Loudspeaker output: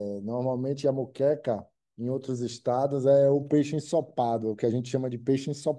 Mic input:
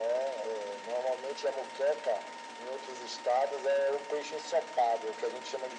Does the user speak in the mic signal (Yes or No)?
No